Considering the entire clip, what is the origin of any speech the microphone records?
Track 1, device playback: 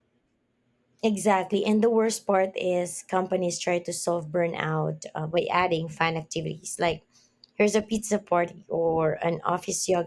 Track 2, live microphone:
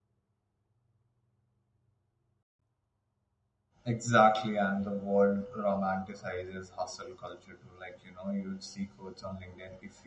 user only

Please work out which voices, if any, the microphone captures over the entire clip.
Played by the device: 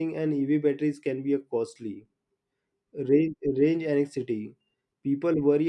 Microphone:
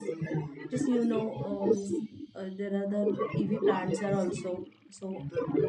both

